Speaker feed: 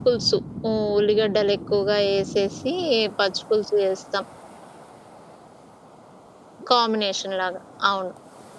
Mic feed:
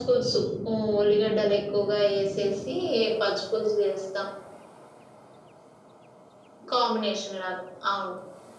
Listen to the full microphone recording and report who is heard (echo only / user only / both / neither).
echo only